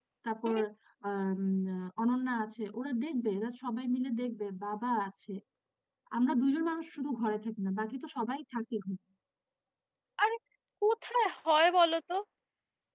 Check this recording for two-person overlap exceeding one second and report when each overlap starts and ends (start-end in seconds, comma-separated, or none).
none